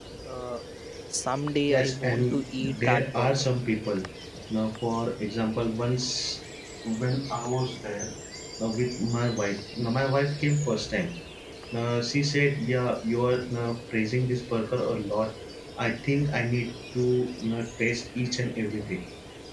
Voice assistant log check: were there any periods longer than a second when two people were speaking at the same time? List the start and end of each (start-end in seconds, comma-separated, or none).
1.7-3.5